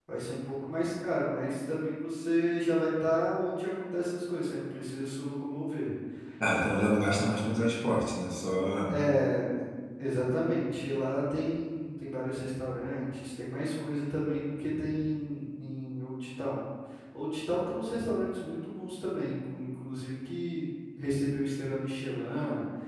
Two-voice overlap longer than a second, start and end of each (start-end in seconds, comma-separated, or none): none